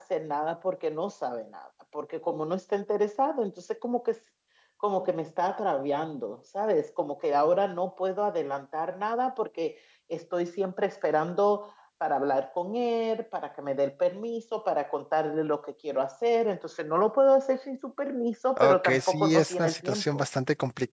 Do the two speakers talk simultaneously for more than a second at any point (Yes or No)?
Yes